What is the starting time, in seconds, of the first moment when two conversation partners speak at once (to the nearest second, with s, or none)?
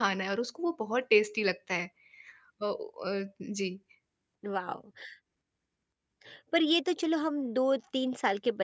none